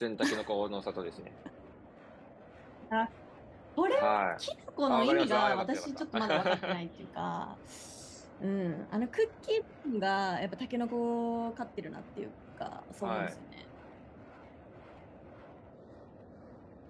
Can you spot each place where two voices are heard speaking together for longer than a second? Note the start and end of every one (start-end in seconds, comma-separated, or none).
4.9-6.8